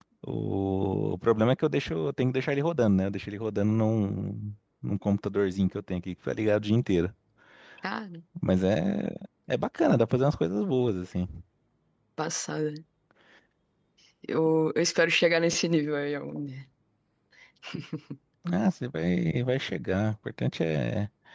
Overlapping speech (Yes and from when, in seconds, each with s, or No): No